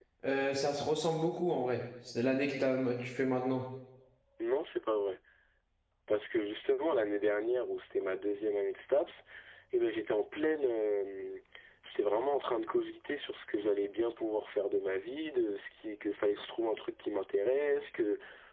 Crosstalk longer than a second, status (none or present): none